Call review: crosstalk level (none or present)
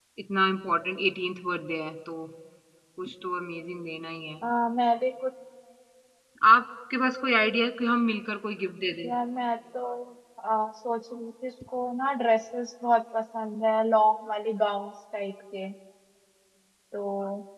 none